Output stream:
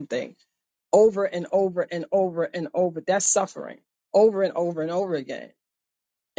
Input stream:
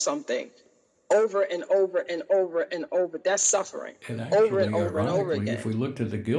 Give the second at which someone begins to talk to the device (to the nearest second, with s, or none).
4 s